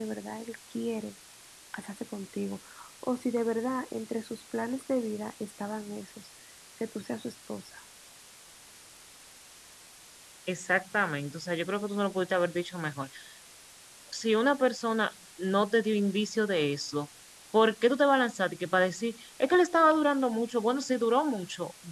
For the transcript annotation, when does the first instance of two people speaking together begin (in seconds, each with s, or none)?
none